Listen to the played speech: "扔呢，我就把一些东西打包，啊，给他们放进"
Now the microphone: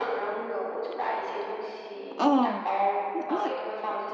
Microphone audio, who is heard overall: both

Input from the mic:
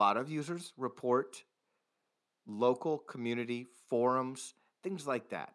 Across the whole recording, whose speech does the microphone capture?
user only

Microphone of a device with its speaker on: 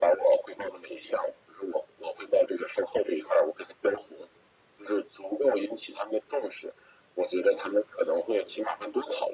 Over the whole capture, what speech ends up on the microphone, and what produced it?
echo only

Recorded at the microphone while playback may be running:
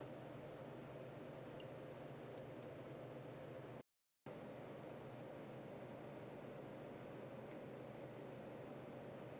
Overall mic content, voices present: neither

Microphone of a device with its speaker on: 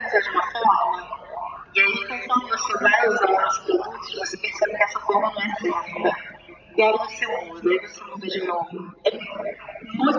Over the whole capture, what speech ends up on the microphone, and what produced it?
echo only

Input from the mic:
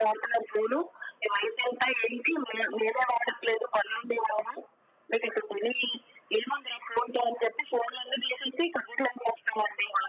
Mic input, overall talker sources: echo only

